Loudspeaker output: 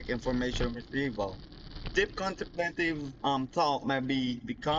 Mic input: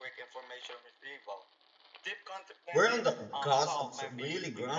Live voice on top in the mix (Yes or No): Yes